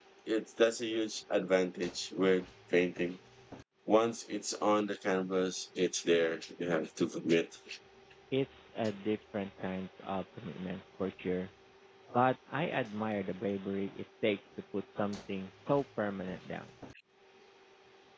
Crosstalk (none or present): none